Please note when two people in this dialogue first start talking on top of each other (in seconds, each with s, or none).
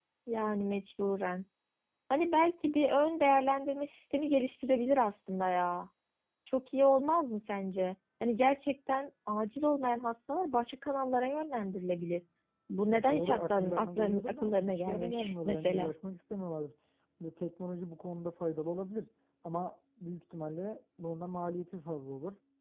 12.9 s